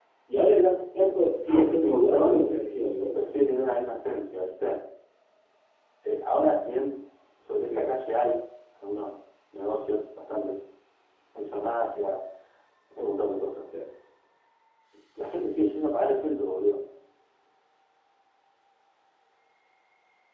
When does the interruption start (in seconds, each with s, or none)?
1.5 s